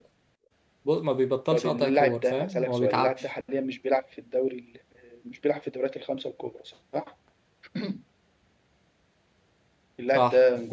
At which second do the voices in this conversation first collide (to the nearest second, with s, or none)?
2 s